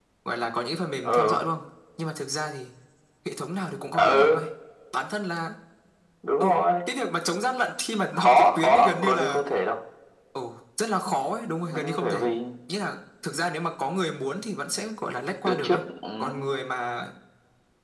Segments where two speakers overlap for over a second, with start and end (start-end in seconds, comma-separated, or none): 8.1-9.4